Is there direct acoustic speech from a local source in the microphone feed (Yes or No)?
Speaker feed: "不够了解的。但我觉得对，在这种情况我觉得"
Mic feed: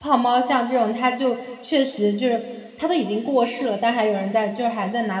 Yes